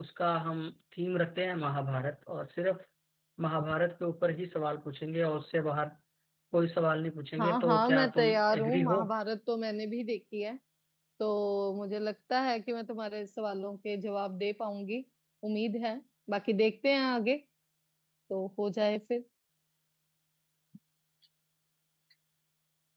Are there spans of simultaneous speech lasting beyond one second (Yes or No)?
Yes